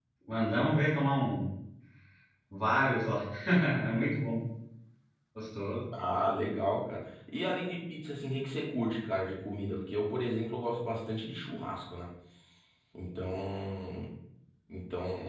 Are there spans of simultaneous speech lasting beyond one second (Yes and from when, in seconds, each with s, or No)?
No